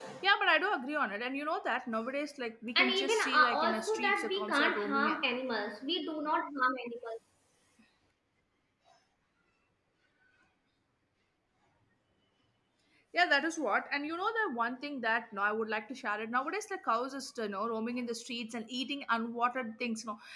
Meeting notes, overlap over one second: present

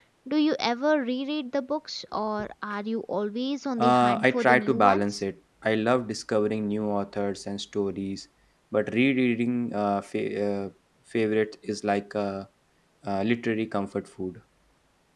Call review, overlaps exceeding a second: present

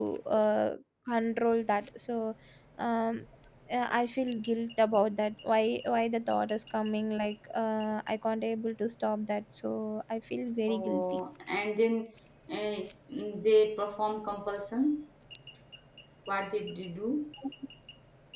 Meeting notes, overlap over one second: none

